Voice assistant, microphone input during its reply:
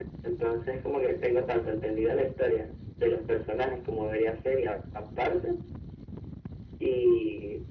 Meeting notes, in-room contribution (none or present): none